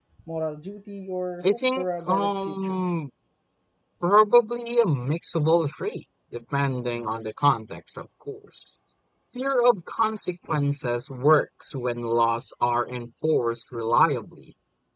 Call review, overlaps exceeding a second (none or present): present